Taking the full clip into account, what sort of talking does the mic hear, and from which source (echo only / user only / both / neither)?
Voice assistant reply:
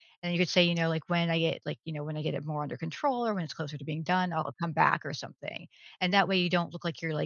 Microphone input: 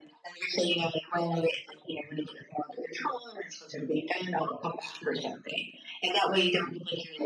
echo only